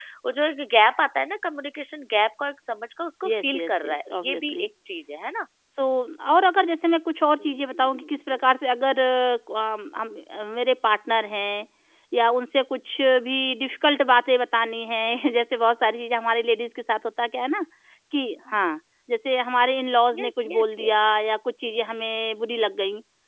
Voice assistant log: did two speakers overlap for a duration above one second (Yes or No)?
Yes